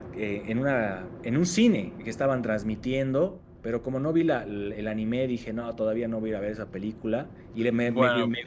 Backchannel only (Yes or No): Yes